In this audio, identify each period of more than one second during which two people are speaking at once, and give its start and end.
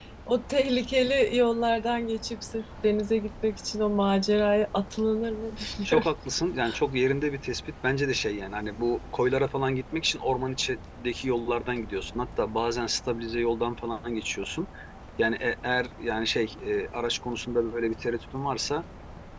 none

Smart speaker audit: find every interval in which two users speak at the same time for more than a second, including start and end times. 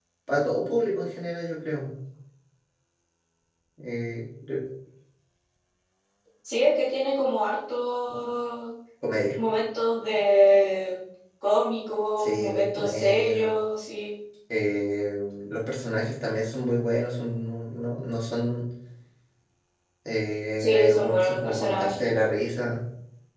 12.2-13.5, 20.6-22.0

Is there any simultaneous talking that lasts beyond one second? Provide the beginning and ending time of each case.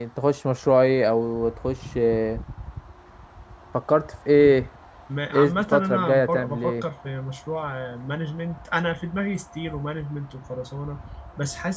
5.3-6.8

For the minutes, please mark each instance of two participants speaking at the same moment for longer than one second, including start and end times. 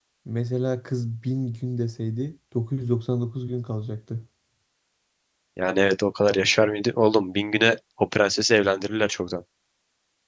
none

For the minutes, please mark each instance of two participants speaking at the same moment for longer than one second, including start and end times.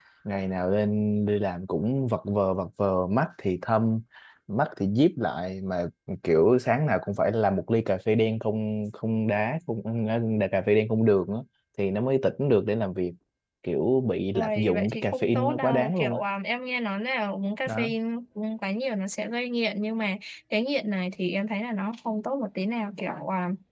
14.3-16.2

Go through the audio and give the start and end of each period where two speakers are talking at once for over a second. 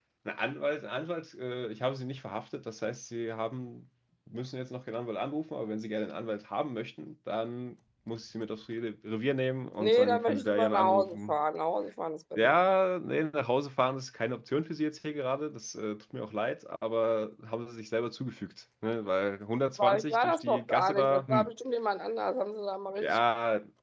9.8-11.4, 19.8-21.5

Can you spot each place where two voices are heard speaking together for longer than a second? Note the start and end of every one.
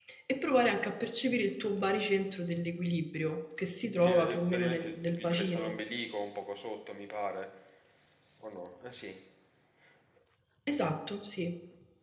4.0-5.7

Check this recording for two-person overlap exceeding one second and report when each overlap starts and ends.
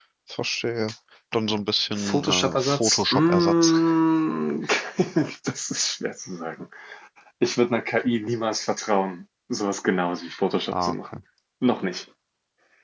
1.9-3.7

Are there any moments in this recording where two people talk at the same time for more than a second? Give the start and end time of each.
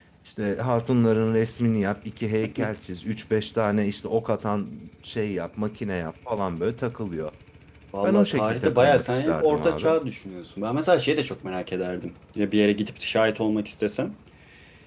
8.0-9.9

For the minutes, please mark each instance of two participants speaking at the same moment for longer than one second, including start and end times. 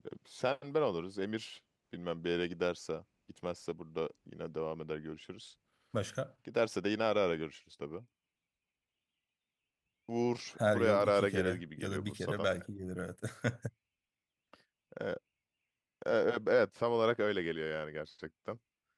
10.7-12.5

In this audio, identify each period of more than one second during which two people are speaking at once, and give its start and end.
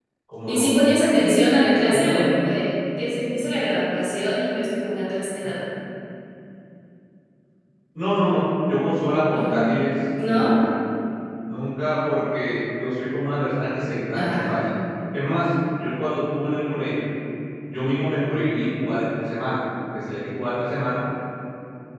none

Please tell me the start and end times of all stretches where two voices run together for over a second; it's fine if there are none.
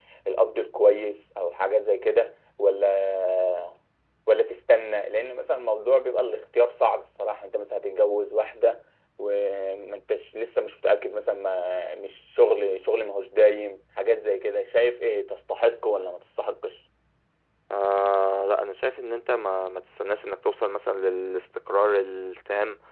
none

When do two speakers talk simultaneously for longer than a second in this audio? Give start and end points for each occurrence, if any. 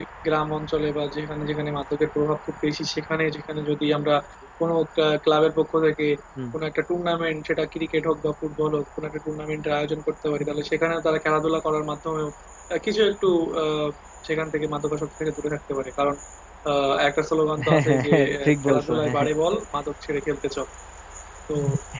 17.7-19.2

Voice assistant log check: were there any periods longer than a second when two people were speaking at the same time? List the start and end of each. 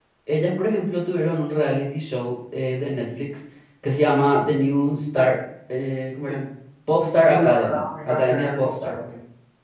7.1-8.9

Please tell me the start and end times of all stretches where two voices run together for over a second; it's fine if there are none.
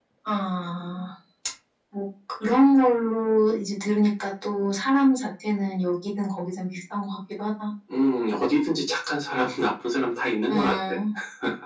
none

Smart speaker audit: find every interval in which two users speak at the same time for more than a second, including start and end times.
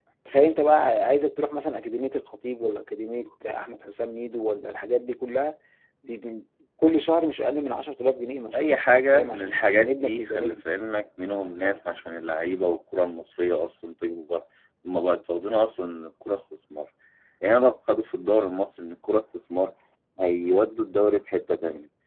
9.1-10.6

